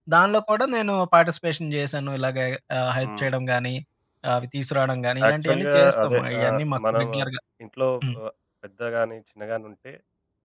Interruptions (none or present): present